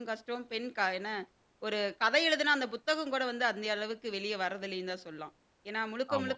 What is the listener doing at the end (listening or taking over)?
listening